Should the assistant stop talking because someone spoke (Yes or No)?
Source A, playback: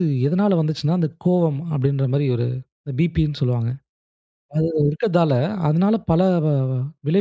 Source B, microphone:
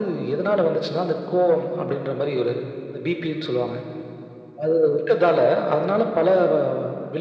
No